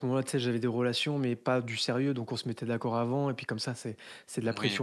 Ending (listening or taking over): listening